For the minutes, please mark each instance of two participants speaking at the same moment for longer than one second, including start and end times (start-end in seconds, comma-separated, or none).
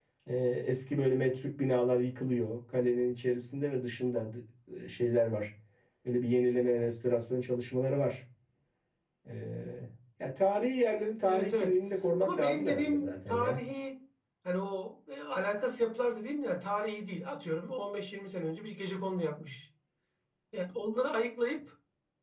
12.2-13.6